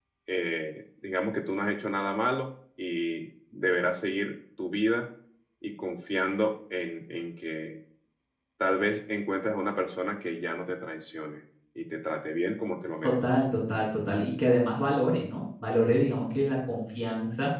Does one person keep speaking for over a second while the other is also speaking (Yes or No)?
No